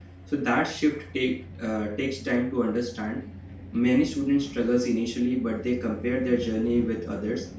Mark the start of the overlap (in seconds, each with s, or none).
none